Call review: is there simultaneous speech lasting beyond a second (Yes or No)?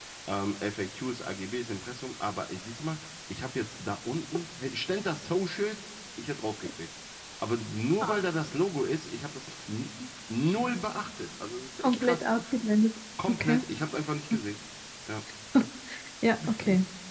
No